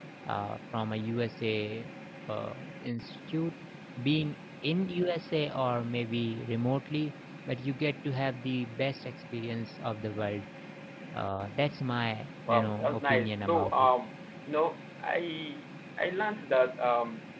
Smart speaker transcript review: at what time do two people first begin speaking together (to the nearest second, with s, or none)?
12 s